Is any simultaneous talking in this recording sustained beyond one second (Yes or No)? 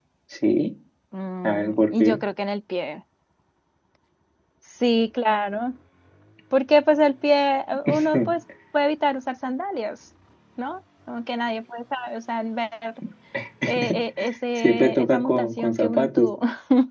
Yes